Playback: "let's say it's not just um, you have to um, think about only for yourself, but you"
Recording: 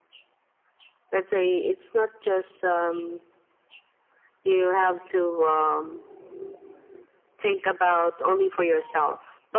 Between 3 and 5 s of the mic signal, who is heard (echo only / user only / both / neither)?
echo only